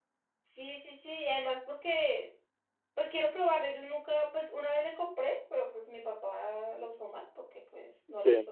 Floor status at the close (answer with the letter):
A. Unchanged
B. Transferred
A